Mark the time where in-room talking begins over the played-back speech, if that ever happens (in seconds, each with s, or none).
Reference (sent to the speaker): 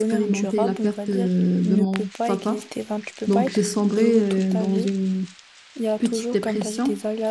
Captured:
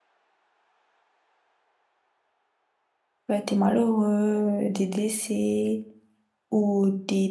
3.3 s